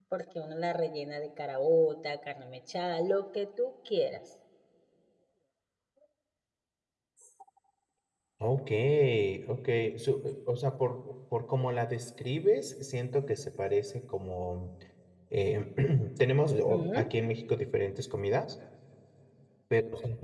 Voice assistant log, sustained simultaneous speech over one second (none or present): none